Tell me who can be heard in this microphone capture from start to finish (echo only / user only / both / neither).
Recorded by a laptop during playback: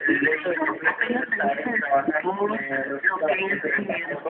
echo only